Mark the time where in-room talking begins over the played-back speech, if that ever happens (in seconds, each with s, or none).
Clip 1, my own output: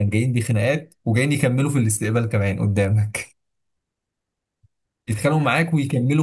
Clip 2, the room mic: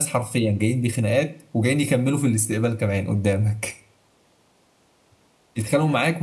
none